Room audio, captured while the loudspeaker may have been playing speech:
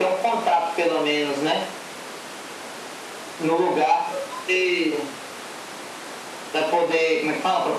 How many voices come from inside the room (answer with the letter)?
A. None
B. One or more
A